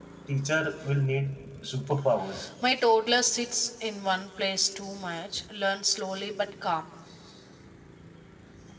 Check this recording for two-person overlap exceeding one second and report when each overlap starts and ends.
none

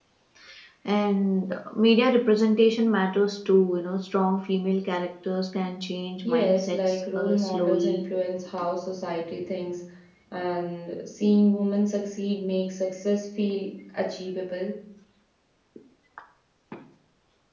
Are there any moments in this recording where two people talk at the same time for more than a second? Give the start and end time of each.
6.2-8.0

